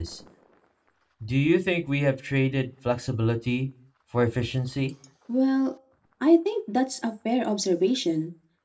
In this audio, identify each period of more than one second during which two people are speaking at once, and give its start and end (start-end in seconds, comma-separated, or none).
none